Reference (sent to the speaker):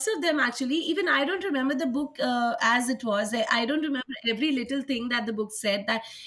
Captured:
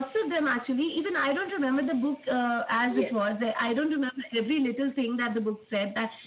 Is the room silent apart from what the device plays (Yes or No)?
No